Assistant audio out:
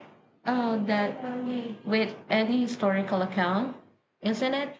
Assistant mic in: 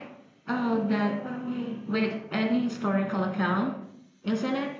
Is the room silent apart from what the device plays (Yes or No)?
Yes